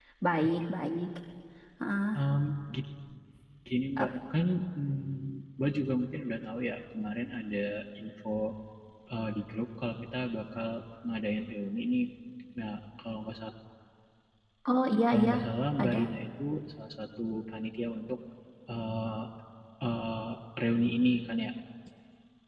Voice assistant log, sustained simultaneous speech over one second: none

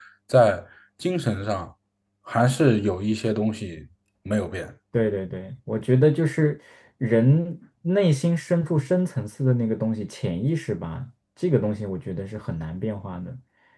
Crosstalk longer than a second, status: none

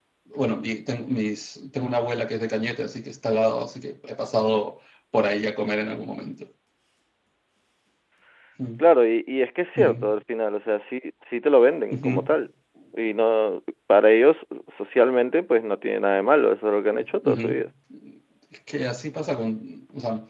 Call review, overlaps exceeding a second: none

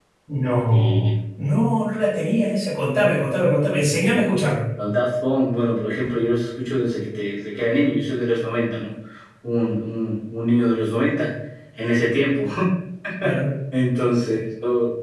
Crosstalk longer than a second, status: none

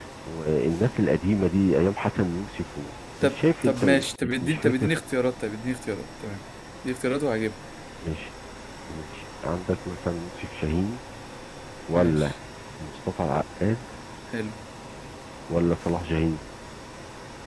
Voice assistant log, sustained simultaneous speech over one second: present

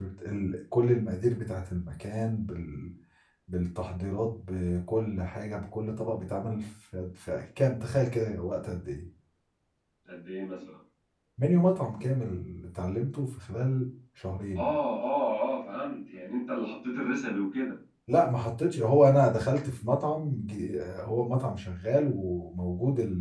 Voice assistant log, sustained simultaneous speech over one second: none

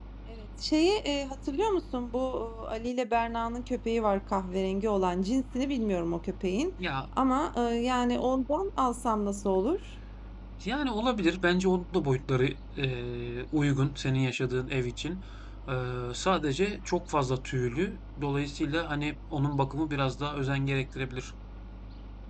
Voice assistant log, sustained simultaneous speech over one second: none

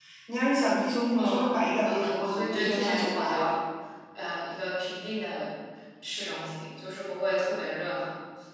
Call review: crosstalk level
present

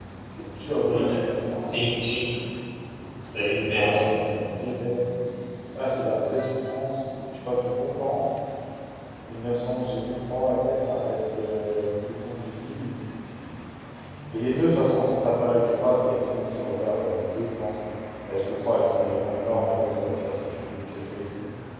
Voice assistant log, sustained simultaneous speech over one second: none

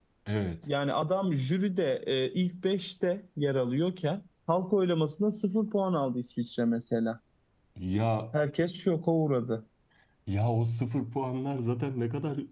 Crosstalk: none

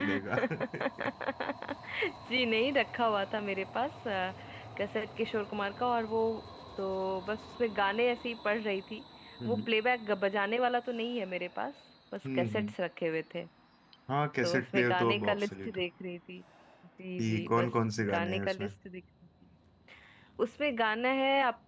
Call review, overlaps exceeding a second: present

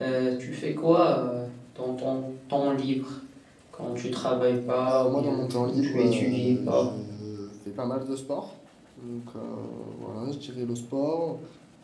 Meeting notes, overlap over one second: present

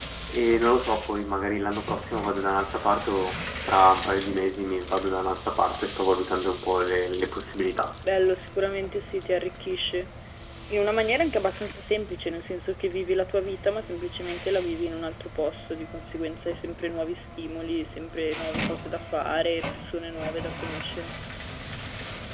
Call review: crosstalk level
none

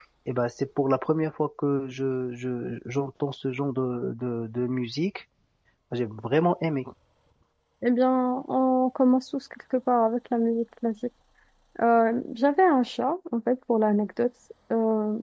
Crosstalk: none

